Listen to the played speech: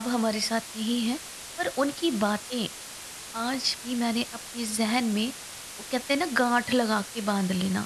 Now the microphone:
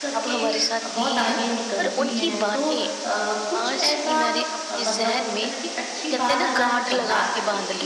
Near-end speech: present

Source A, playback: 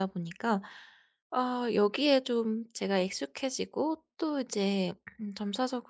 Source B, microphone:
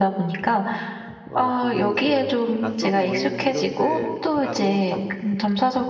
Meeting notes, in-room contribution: present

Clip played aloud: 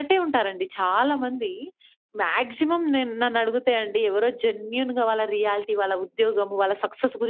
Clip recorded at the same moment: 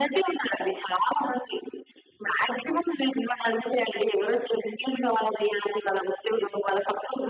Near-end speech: none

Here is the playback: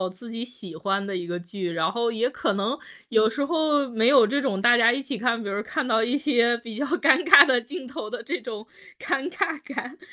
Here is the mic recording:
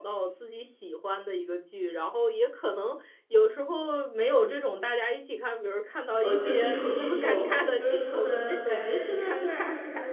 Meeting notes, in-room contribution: present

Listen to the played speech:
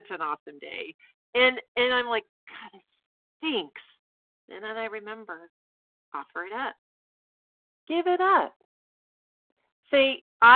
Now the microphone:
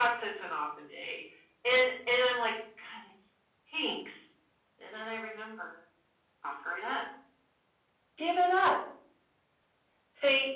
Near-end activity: none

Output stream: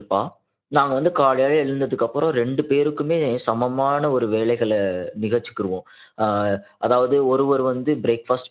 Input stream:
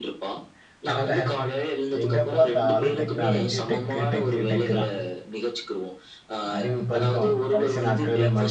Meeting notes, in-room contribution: present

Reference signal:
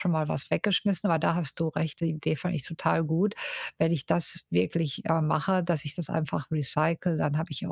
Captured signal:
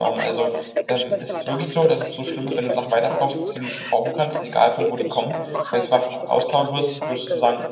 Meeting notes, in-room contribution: present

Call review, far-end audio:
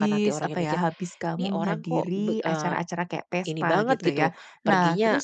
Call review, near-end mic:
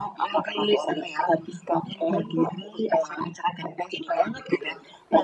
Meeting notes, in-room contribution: none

